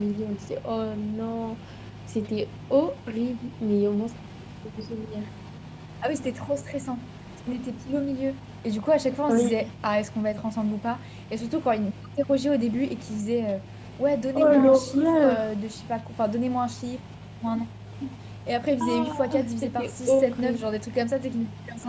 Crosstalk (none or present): present